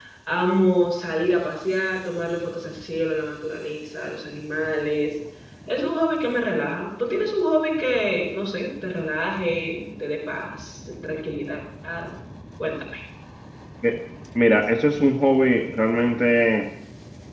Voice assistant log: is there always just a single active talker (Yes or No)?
Yes